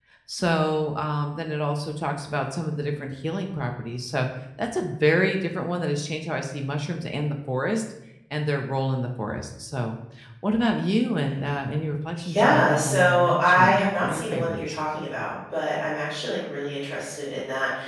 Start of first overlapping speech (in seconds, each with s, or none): 12.2 s